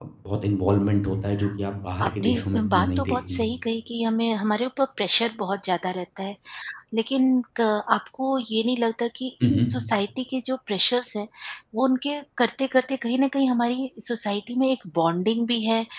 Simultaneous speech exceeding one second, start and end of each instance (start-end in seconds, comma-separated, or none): 2.0-3.5